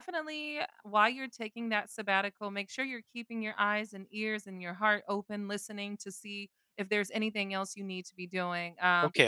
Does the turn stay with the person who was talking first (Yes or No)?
Yes